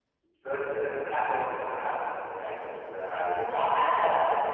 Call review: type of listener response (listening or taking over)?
taking over